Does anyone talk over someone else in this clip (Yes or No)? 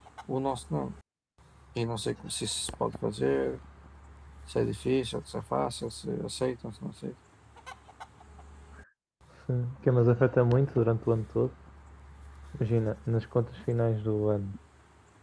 No